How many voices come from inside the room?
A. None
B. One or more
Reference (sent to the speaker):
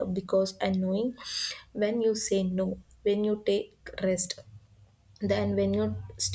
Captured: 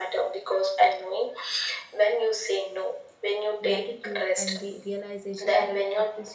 B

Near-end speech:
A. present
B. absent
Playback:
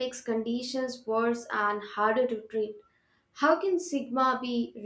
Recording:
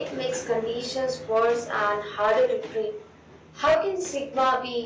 B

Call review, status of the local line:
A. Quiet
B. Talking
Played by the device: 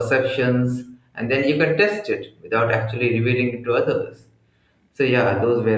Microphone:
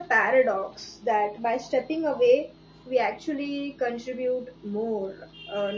B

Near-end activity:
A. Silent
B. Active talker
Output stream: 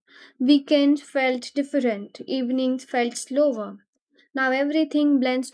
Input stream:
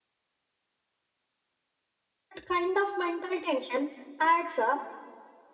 B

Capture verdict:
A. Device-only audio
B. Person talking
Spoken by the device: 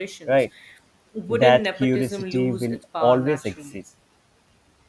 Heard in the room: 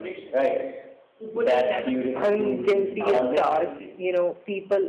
B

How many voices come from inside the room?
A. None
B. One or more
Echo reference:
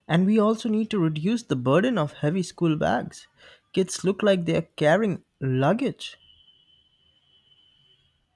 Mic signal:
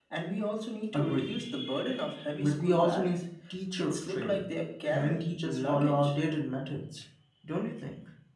B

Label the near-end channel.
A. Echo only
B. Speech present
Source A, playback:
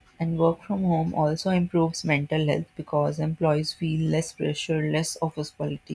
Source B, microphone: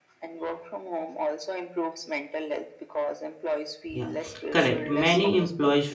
B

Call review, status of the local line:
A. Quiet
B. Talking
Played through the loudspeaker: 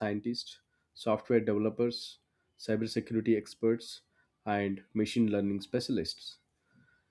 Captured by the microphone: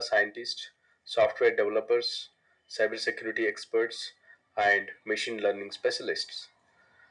A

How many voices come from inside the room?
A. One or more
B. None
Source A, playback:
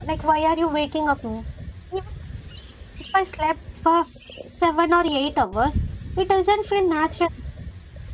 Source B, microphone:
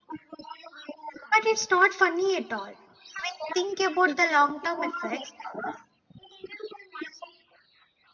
A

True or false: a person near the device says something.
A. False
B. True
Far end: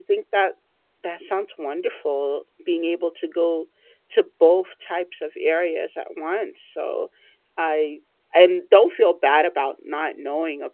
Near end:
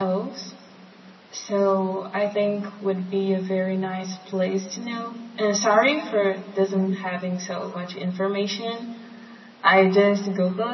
B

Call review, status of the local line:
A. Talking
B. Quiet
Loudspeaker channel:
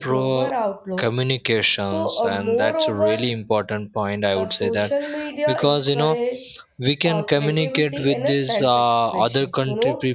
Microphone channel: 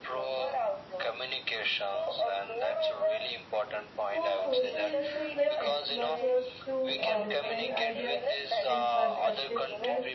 A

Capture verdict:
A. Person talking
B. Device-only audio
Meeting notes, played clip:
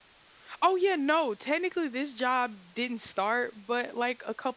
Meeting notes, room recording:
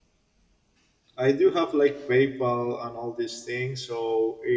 A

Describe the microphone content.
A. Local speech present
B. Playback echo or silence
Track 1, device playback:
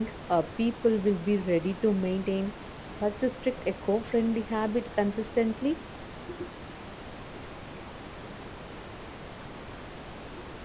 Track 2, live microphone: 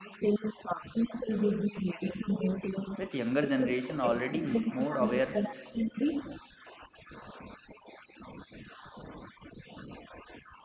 A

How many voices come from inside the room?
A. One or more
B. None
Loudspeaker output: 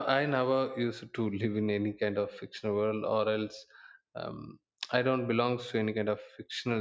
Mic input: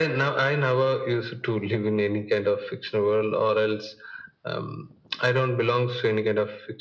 B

